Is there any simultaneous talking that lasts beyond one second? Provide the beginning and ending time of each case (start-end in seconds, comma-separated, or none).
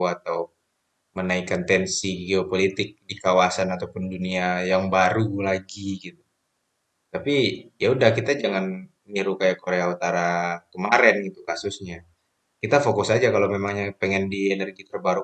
none